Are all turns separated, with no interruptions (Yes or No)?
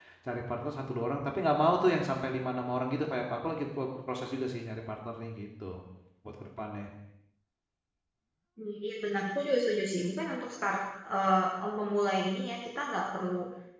Yes